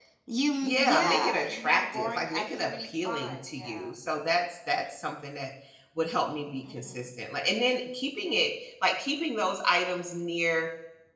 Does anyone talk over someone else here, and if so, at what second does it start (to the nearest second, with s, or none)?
1 s